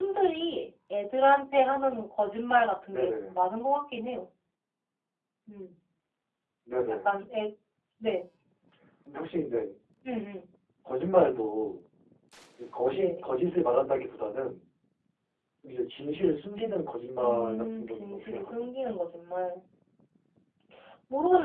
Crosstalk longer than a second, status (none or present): present